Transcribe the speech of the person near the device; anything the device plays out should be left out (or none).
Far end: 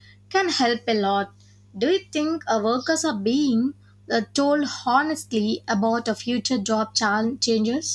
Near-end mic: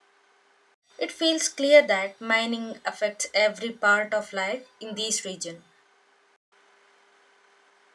it feels clear that mining affects every part of life in this region.